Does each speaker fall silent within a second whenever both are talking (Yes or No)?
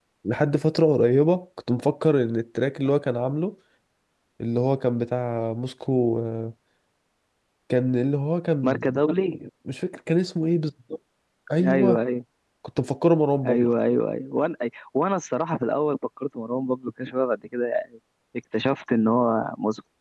Yes